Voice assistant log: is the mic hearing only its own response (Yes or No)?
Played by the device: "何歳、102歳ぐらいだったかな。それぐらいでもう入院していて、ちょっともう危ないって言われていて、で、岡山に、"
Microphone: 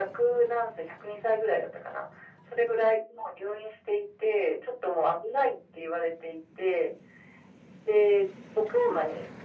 Yes